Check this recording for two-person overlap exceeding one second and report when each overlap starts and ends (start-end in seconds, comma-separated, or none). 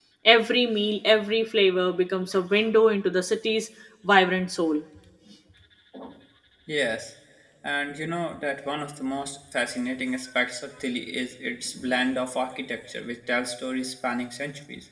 none